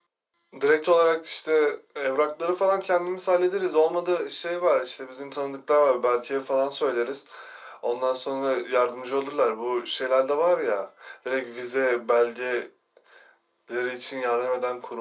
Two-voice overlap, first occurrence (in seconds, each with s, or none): none